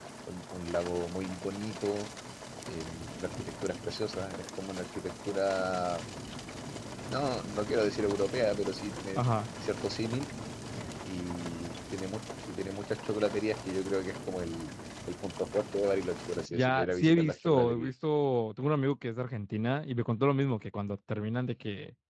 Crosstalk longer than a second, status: present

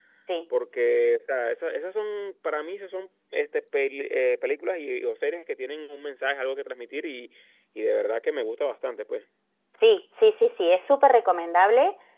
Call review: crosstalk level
none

